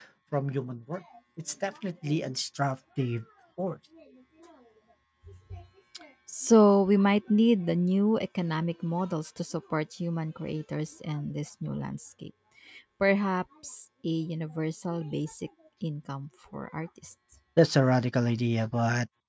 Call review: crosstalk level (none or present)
none